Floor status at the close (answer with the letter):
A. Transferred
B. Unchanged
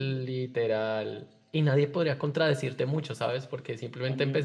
B